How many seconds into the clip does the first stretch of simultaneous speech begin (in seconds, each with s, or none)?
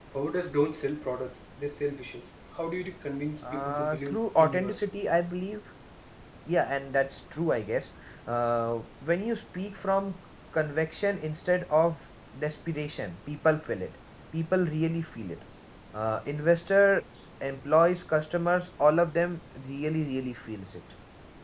3.4 s